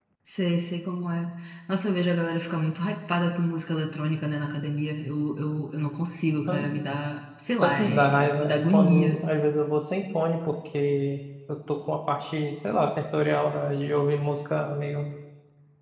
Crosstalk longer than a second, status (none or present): present